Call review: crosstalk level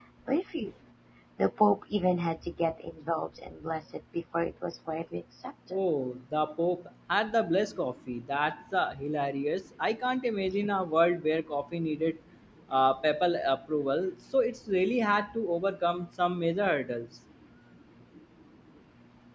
none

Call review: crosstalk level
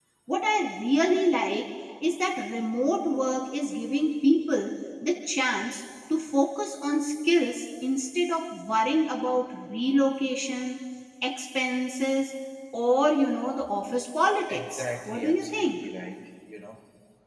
present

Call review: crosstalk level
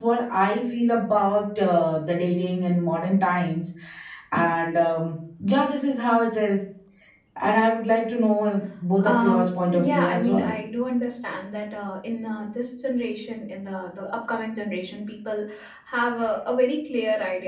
present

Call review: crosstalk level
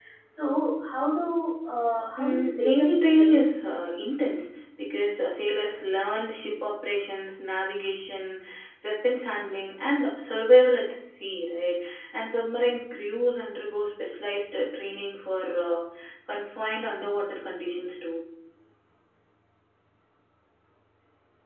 present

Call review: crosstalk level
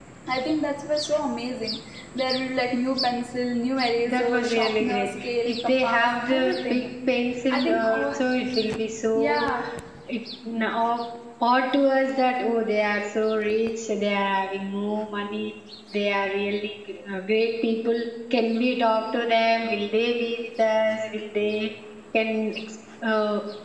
present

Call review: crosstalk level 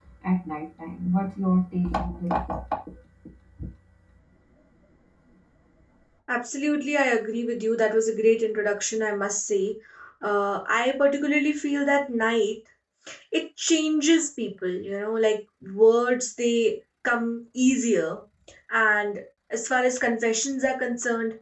none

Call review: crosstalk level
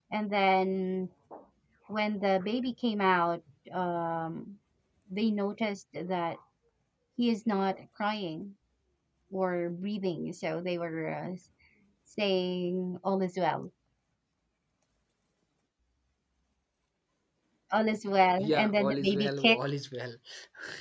present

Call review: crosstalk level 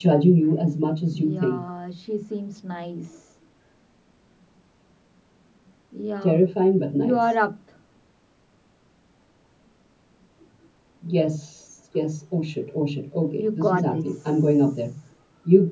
present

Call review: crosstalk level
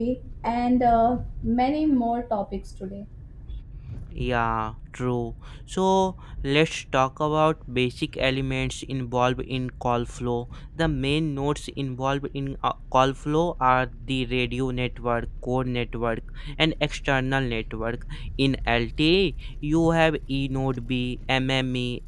none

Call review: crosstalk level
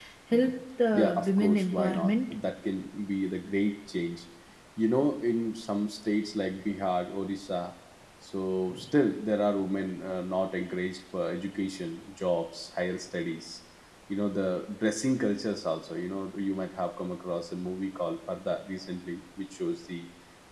present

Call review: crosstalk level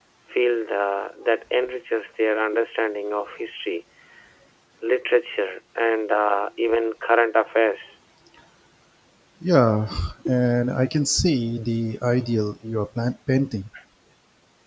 none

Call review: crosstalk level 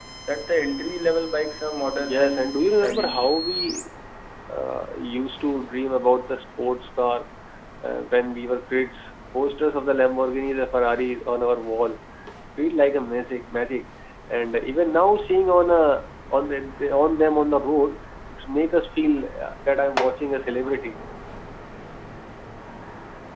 present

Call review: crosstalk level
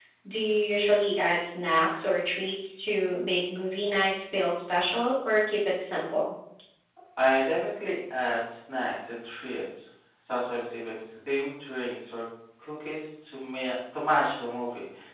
none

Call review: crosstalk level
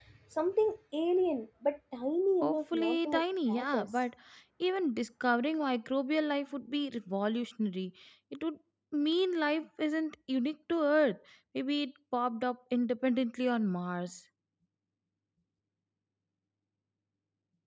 present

